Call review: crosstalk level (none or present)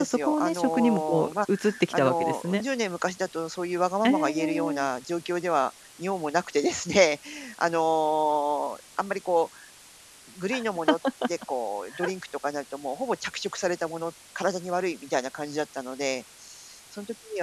present